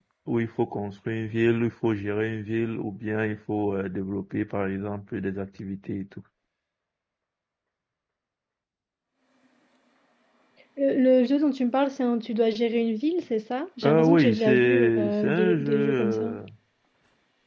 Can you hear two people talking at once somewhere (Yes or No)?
Yes